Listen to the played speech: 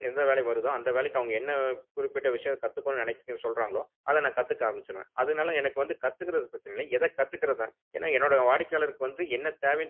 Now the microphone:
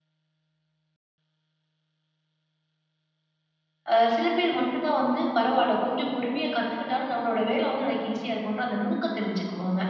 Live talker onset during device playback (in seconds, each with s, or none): 3.9 s